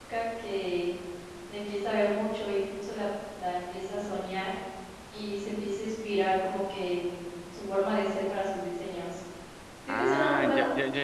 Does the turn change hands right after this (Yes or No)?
Yes